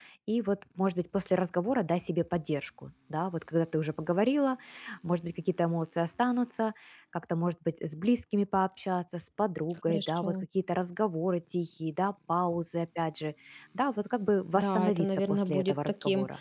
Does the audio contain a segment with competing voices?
Yes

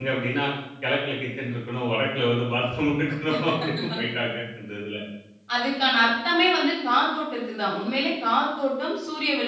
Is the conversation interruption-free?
Yes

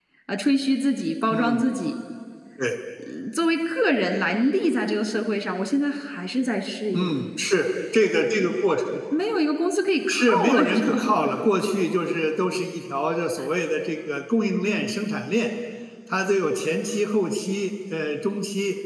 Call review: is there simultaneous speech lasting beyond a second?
Yes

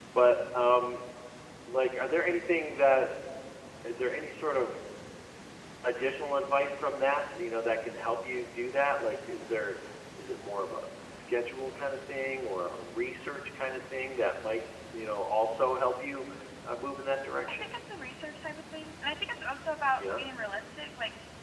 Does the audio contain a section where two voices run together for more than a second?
No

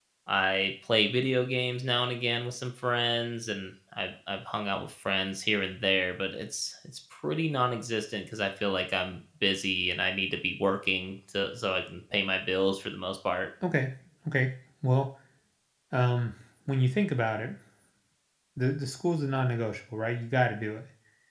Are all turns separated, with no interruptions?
Yes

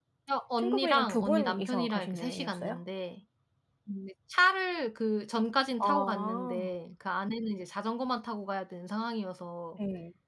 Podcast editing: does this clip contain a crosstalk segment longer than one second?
Yes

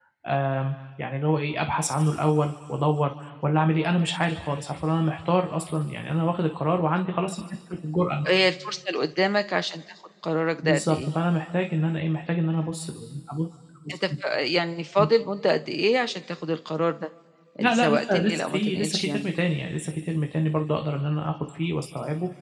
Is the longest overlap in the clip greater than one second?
Yes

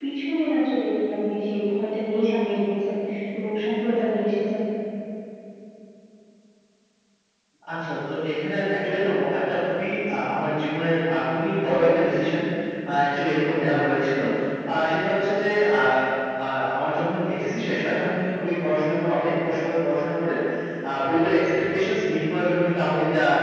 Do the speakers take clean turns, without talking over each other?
Yes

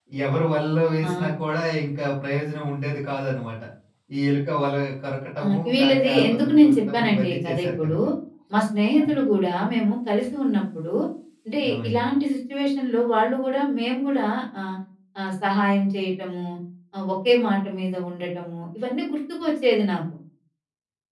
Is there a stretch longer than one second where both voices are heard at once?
Yes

